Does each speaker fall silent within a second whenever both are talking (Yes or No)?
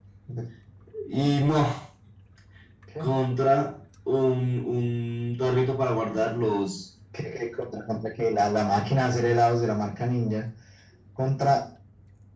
Yes